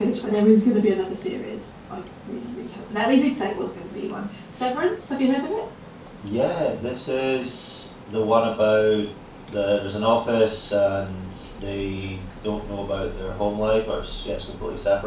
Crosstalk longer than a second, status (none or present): none